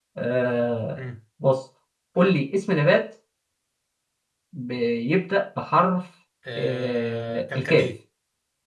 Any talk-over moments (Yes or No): Yes